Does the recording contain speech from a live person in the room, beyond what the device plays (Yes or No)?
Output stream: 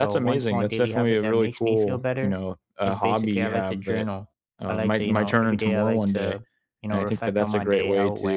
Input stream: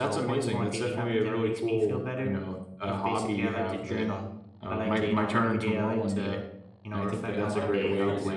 Yes